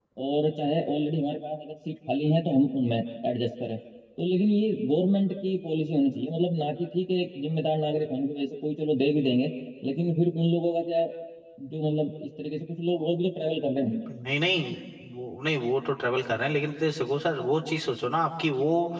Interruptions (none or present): none